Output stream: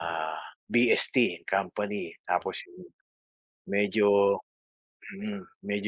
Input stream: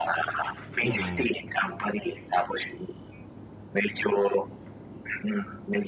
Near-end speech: present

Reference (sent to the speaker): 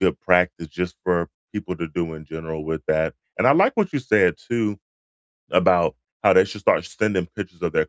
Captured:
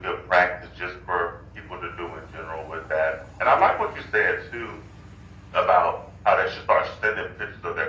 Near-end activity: none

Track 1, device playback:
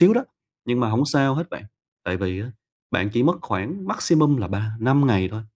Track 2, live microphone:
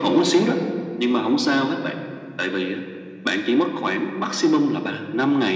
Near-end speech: none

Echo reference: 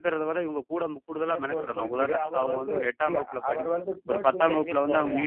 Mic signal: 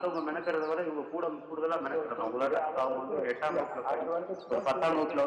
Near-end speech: none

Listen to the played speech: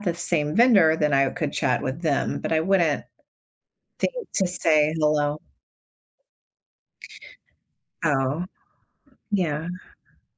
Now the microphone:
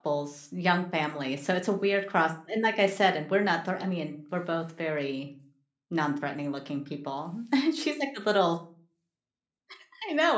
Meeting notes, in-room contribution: present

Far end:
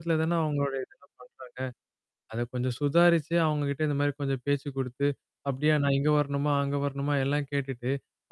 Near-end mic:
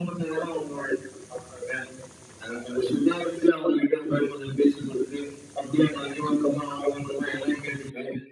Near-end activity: none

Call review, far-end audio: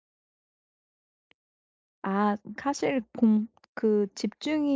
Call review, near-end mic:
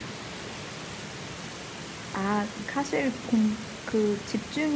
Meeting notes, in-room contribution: none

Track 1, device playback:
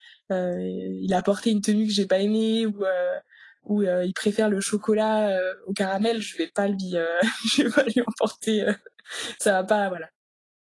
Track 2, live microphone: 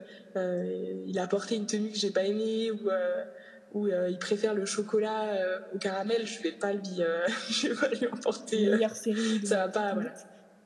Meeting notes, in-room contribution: present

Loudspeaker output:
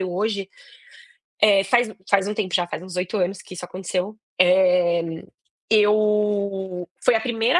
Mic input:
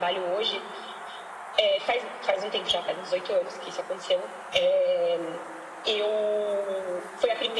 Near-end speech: none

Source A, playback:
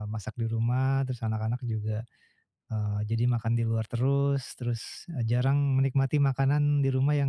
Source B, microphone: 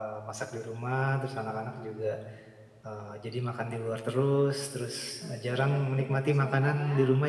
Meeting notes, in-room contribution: present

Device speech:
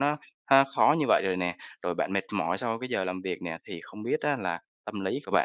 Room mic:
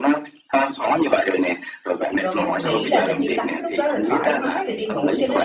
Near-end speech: present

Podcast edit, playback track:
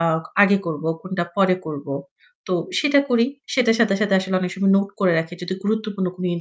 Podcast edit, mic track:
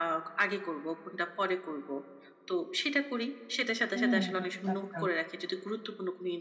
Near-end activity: present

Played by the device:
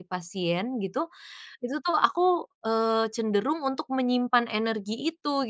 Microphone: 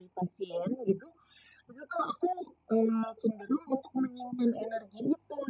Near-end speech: none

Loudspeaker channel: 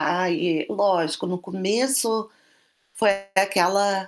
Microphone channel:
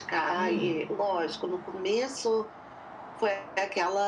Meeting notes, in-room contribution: present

